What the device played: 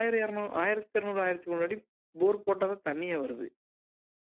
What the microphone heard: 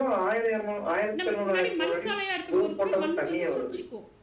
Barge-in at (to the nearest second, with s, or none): 1 s